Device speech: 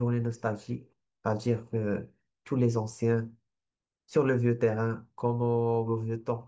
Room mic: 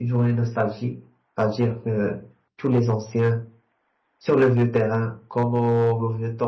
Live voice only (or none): none